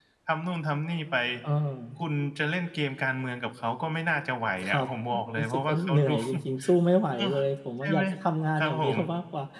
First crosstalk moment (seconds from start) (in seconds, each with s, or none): 4.6 s